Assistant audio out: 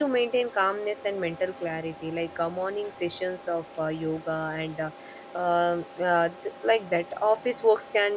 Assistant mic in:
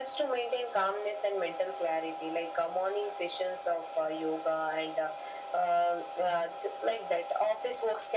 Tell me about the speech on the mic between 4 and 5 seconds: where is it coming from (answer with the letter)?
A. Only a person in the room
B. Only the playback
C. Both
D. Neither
B